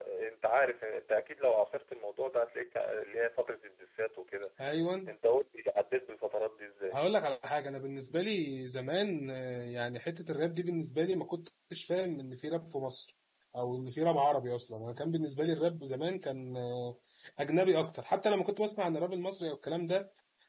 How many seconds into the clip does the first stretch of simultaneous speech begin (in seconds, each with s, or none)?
none